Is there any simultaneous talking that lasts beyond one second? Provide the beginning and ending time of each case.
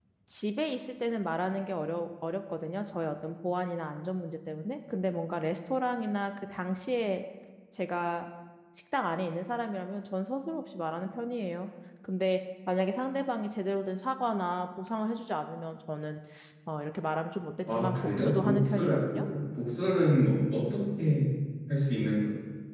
17.7-19.2

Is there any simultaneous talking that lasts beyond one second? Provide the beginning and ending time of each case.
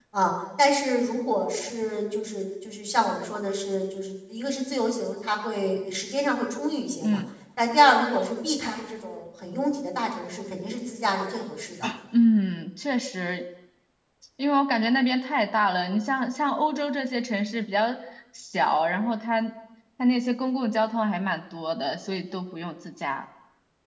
none

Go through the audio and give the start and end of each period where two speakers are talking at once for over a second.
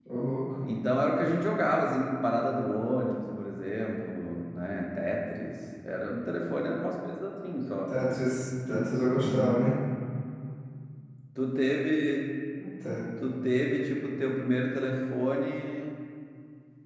none

